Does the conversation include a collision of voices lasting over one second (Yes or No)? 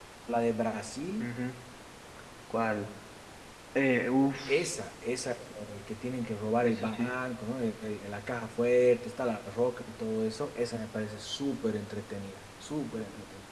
No